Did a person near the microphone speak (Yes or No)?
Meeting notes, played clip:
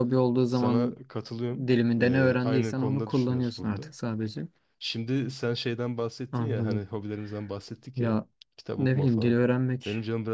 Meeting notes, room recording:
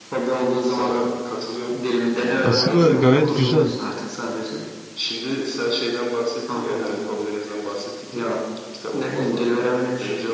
Yes